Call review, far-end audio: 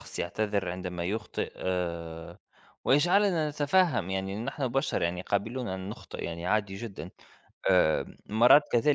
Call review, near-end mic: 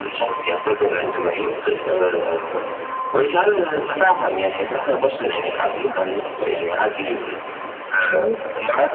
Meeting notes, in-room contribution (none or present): present